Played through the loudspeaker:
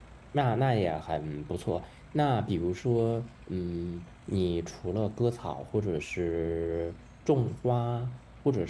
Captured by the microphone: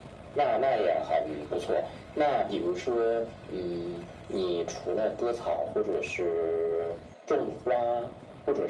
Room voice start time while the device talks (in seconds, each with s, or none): none